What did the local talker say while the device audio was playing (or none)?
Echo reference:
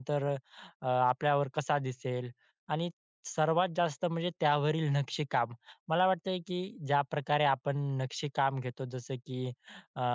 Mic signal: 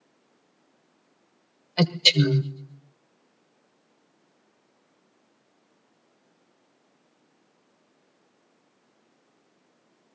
अच्छा. हं.